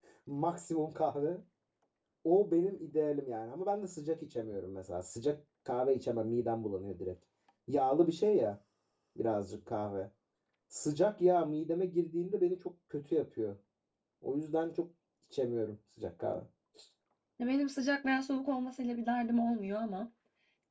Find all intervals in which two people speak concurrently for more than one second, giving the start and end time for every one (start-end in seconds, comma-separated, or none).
none